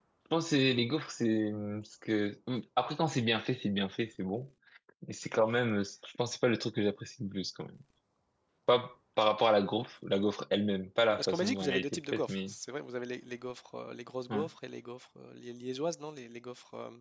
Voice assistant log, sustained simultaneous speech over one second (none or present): present